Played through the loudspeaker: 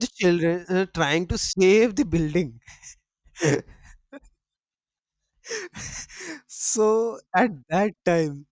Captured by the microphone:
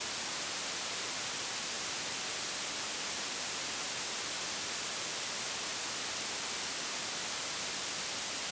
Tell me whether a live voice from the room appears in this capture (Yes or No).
No